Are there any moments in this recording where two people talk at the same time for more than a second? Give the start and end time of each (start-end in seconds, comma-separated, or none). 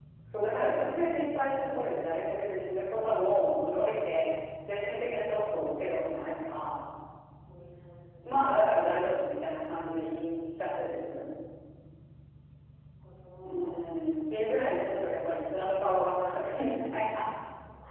none